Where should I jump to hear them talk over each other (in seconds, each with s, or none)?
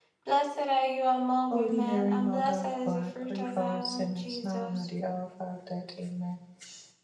1.5 s